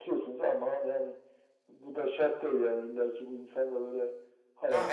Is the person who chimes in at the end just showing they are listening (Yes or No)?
No